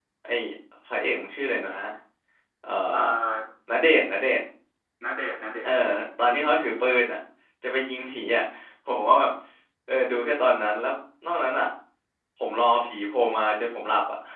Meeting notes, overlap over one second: none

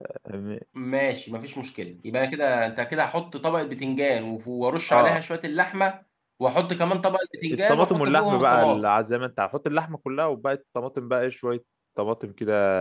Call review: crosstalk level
present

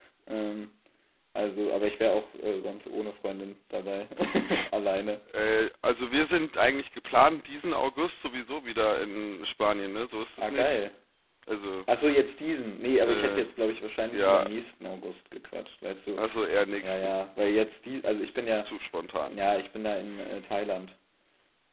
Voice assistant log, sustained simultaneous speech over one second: none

